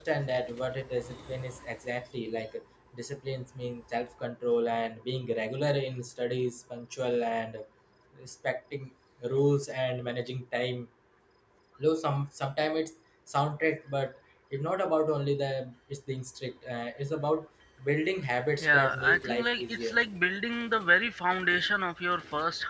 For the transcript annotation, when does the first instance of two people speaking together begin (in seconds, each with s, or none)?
18.6 s